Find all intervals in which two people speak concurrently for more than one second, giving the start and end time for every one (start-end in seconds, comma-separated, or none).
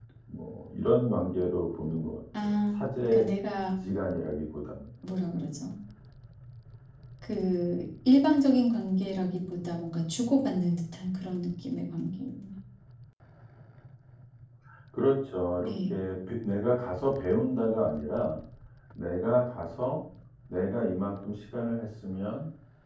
none